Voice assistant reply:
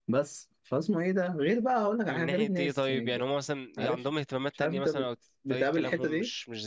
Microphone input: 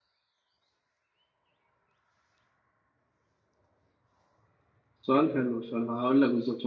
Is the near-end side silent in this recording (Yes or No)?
No